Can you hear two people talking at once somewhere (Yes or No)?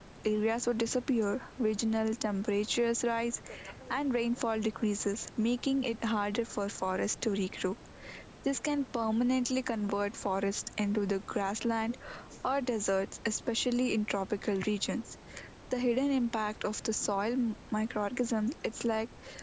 No